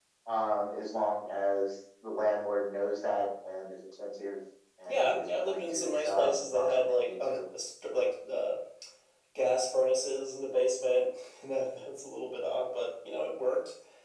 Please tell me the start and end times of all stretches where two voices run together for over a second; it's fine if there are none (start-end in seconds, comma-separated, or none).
4.9-7.4